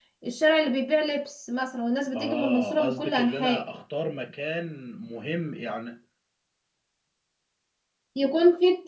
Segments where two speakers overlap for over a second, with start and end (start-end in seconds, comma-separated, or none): 2.1-3.6